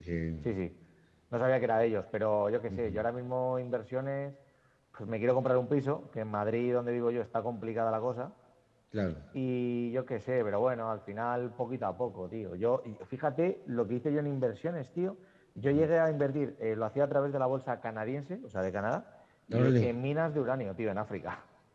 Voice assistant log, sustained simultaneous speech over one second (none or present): none